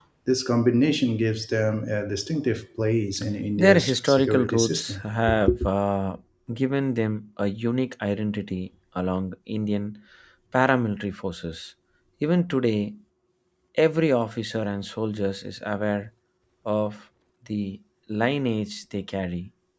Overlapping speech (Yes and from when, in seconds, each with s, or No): Yes, from 3.6 s